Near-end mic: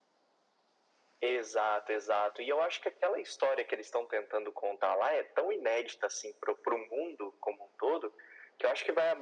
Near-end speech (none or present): none